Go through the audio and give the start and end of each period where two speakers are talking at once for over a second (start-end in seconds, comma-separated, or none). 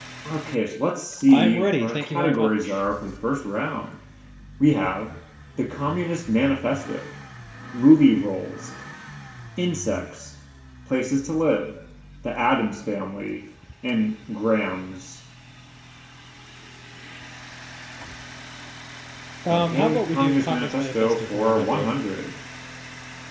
1.3-2.8, 19.5-22.0